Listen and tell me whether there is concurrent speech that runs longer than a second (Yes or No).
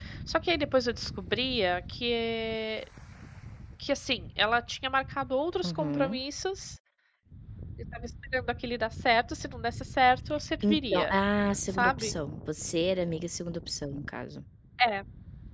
No